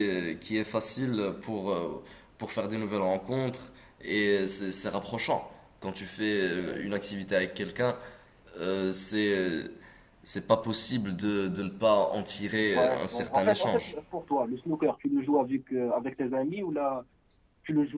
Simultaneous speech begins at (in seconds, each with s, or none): 12.7 s